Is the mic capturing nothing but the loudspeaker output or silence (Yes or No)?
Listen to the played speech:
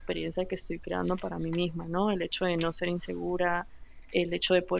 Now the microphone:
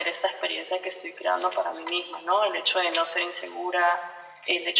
Yes